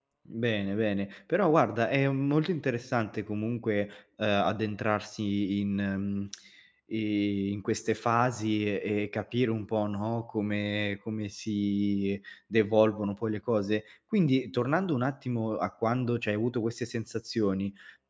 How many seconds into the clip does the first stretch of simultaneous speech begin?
none

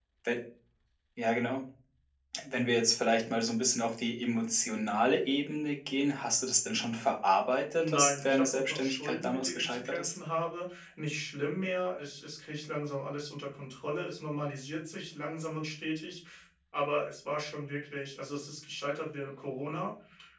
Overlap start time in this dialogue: 7.8 s

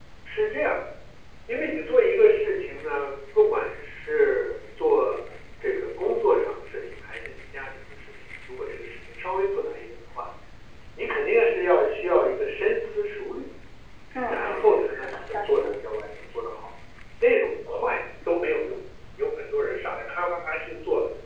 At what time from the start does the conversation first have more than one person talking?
14.2 s

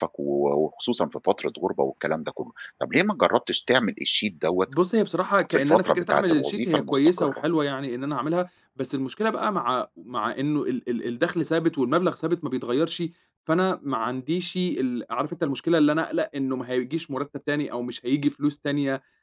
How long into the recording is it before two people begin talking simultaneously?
5.5 s

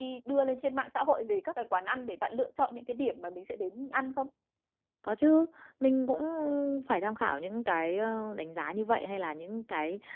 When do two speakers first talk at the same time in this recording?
none

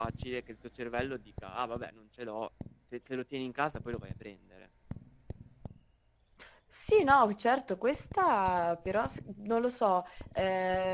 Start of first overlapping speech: none

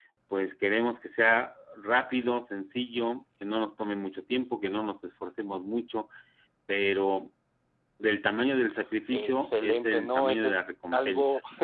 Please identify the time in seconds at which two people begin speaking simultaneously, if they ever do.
9.1 s

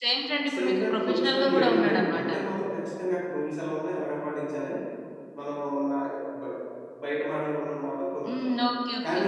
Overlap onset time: 0.5 s

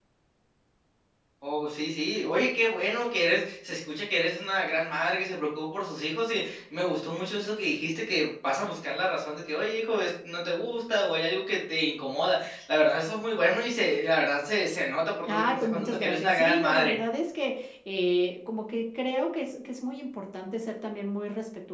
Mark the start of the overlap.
15.2 s

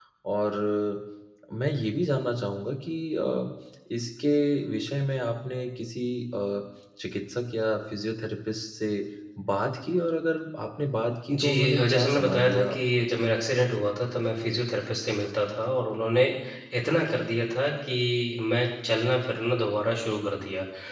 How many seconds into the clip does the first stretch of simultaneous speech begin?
11.3 s

